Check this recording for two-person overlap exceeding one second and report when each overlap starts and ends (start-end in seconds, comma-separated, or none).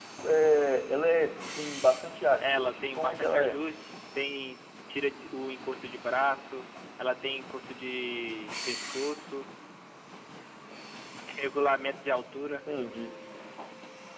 2.4-3.6